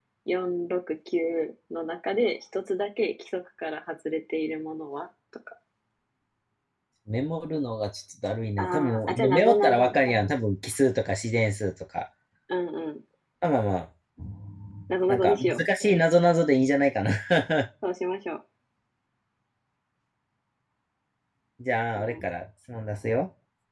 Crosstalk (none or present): present